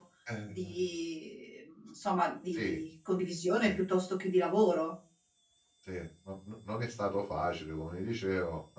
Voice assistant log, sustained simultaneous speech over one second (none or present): none